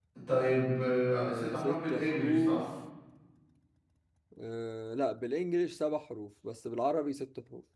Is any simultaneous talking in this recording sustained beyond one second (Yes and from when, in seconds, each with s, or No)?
Yes, from 1.3 s